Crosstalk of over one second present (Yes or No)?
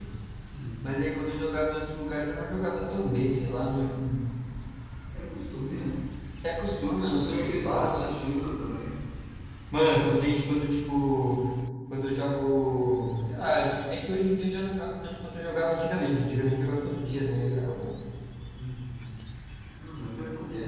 Yes